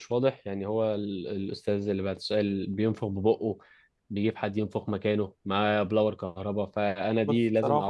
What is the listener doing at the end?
listening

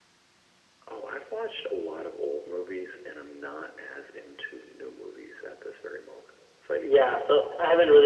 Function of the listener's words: taking over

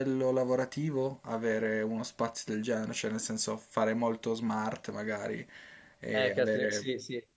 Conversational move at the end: taking over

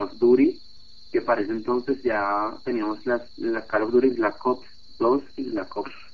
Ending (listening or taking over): taking over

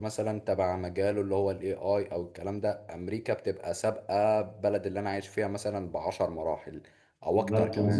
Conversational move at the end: taking over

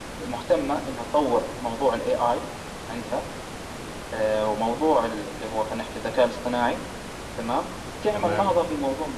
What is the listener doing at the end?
listening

